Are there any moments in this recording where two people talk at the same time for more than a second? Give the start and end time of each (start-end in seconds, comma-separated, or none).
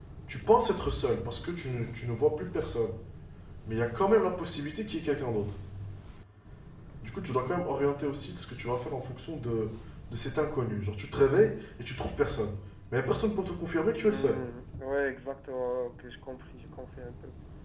none